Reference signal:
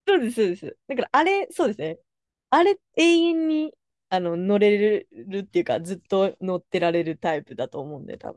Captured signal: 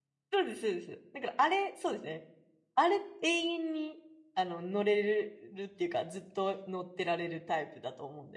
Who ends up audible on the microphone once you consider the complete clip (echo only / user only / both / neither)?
echo only